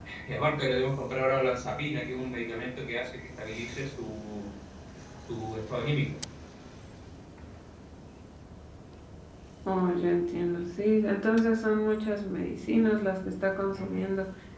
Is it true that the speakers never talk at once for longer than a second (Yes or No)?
Yes